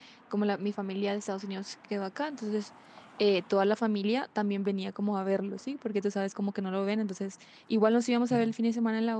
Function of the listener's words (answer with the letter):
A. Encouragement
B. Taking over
A